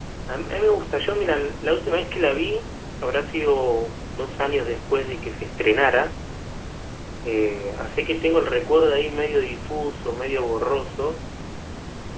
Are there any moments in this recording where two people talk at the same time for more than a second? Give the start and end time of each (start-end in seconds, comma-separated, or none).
none